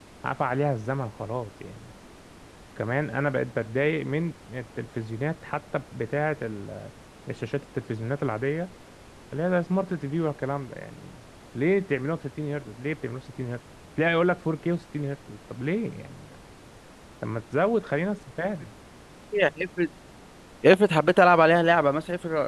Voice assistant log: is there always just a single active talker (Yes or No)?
Yes